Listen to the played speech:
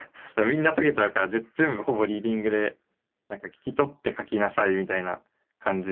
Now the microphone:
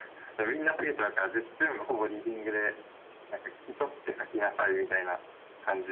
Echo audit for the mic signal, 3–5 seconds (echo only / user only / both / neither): echo only